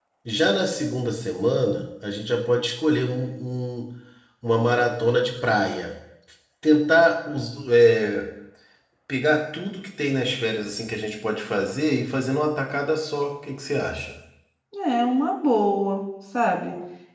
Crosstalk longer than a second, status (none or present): none